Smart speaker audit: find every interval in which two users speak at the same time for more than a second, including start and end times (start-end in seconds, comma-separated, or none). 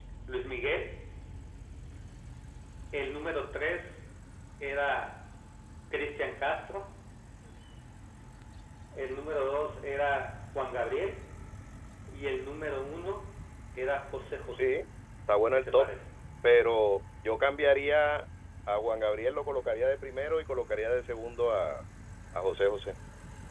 none